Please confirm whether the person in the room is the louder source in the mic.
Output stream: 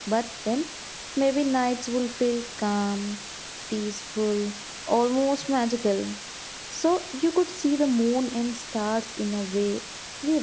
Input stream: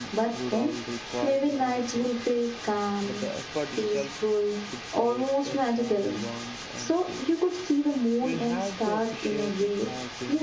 No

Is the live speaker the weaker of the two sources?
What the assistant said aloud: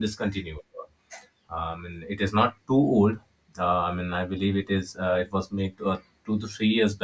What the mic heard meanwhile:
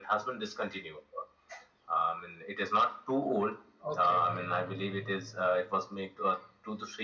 Yes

